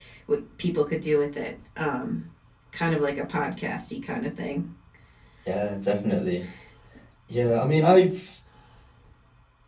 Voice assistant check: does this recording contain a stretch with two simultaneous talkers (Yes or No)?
No